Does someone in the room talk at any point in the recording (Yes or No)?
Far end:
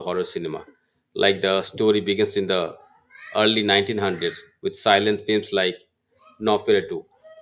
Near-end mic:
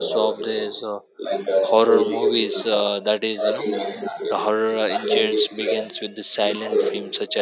Yes